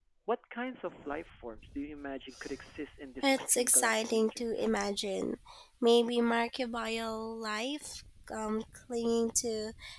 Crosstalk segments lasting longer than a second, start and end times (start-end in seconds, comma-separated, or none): 3.2-4.7